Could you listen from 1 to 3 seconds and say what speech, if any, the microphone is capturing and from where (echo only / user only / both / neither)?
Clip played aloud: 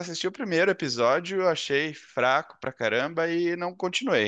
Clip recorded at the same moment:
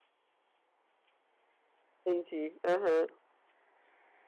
user only